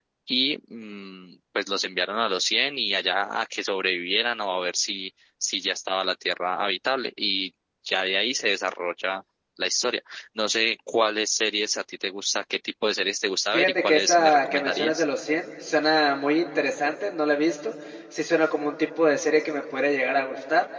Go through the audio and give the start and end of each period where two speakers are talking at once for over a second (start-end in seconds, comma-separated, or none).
13.5-15.0